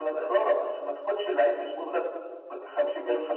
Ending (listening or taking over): taking over